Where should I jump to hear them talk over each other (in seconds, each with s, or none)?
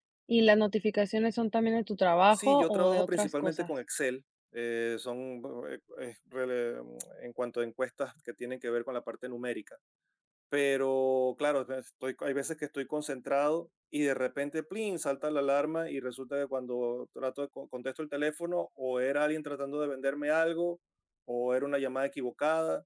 2.3 s